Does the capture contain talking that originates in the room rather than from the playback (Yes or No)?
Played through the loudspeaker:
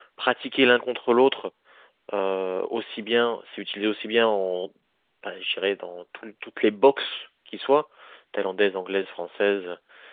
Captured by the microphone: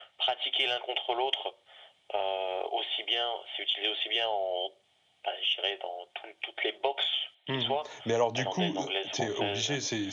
Yes